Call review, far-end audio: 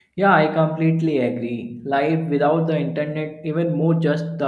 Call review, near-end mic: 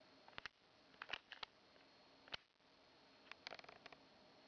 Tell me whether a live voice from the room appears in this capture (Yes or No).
No